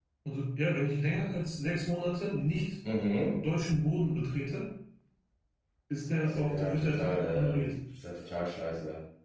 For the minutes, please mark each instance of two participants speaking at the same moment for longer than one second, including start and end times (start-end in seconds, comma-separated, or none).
6.1-7.7